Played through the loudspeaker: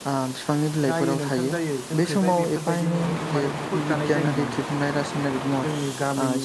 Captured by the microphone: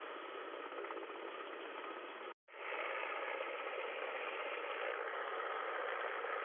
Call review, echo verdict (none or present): none